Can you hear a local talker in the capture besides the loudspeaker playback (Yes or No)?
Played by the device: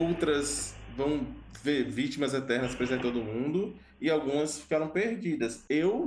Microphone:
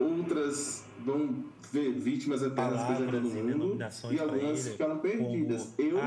Yes